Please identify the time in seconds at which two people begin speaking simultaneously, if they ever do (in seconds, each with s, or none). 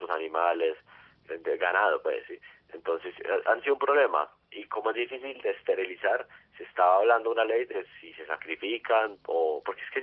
none